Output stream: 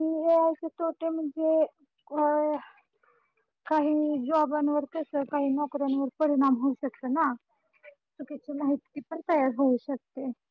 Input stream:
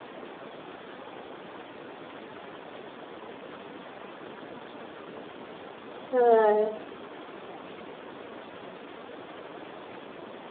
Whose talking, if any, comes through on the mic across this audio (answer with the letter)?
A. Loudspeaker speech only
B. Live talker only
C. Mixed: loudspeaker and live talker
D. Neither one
B